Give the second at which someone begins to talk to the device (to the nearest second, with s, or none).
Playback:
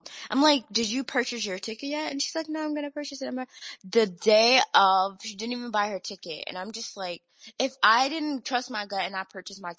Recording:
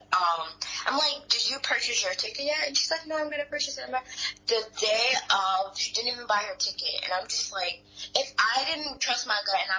none